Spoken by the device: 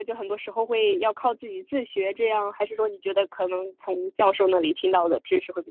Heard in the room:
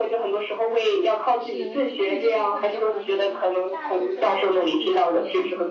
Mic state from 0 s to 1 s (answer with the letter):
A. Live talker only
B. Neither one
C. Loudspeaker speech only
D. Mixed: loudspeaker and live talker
C